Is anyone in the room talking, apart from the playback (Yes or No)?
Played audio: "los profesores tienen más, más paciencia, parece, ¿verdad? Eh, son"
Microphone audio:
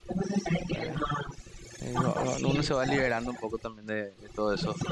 Yes